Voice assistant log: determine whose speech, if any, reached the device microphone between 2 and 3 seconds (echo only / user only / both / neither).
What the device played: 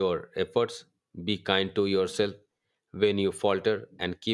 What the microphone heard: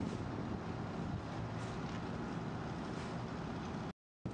neither